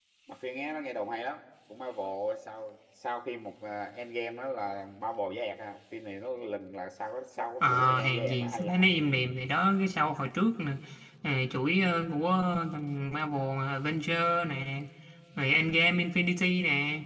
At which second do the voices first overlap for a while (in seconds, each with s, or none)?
7.6 s